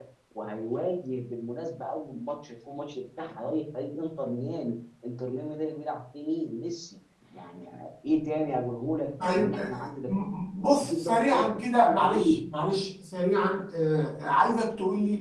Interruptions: present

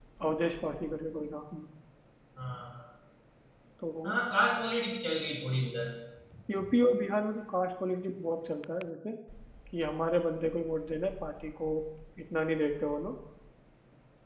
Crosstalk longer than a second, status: none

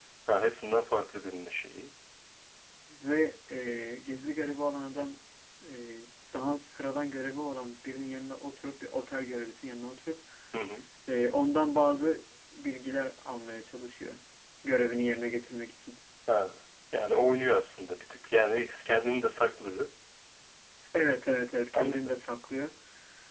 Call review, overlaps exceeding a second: none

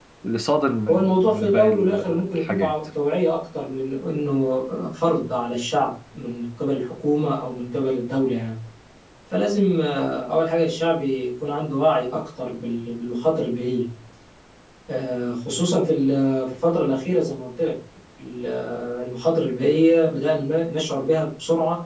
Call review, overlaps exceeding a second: present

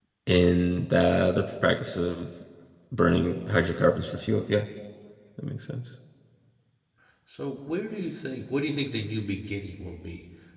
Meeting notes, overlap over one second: none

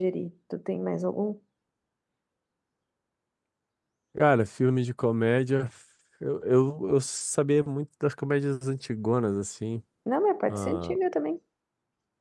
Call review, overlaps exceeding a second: none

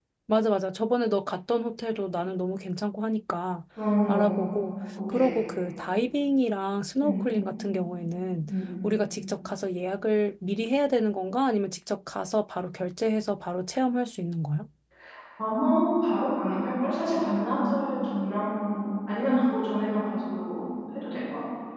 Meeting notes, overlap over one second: none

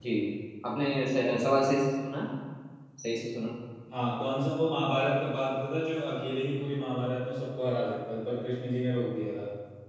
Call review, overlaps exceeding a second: none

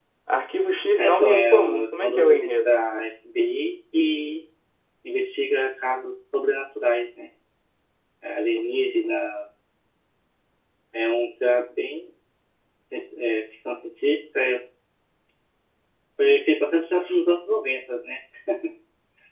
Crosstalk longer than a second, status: present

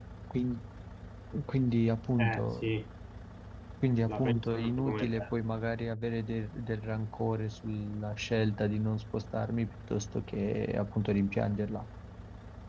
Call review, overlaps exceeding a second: present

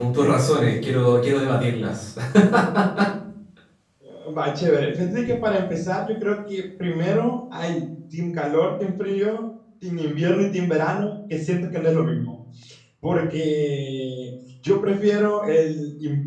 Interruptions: none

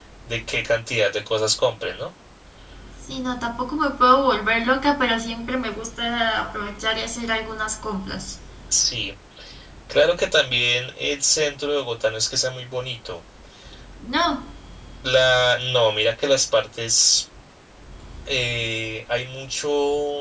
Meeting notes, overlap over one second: none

